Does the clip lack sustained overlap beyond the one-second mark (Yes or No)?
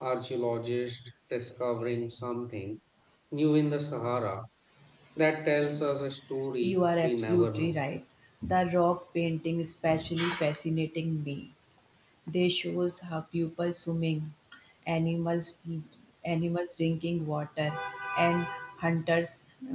No